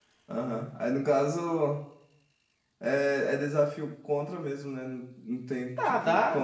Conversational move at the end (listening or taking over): taking over